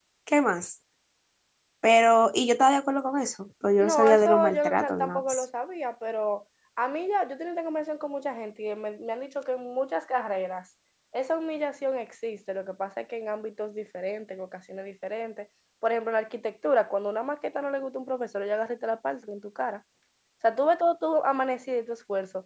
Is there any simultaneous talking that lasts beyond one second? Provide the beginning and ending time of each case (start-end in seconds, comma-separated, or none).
3.8-5.4